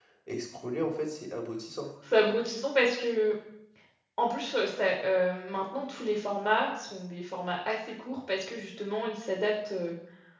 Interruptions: none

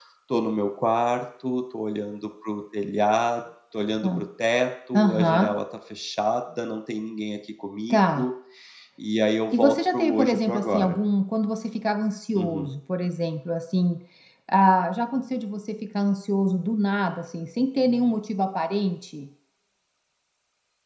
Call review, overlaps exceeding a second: present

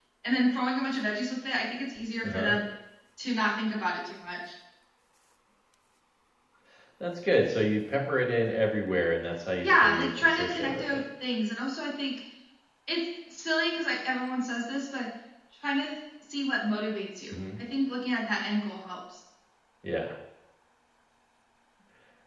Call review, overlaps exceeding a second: present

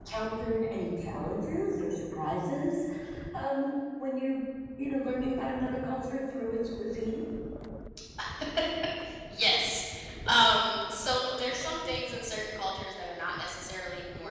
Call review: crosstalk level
none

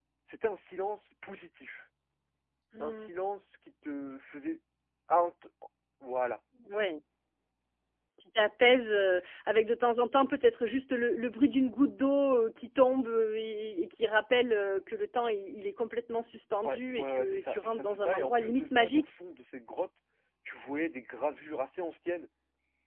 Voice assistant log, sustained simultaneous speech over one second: present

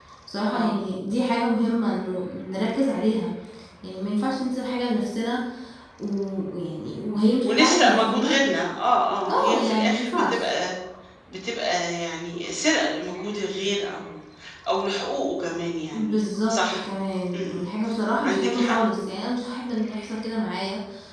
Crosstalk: present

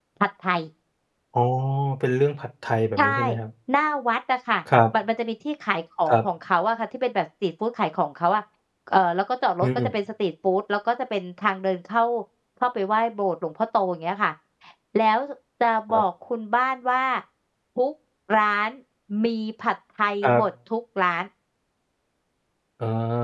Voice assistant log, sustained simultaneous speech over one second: none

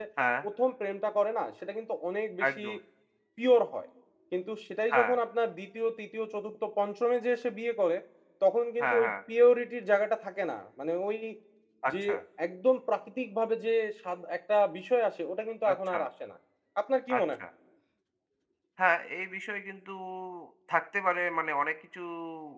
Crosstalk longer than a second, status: none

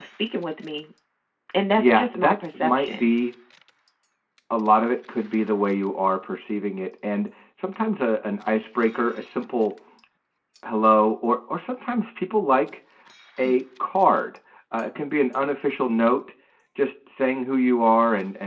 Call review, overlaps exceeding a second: present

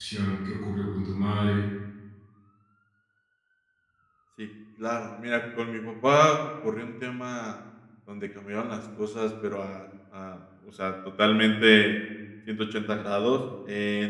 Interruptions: none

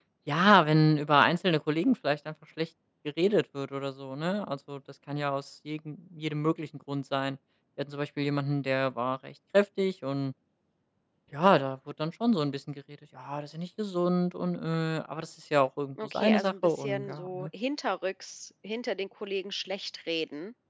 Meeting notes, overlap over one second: present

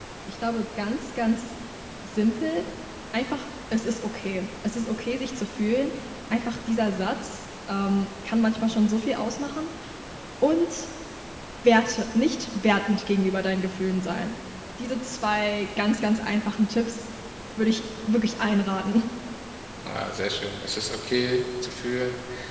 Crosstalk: none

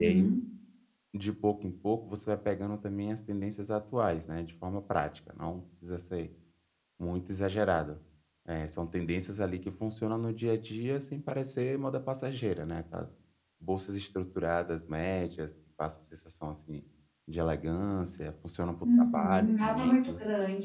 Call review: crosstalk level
present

